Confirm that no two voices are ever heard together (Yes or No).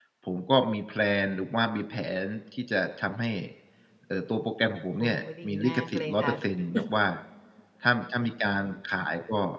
No